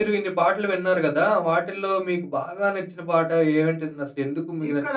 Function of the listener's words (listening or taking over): taking over